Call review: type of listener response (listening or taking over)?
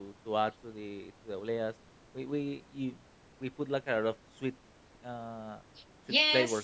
taking over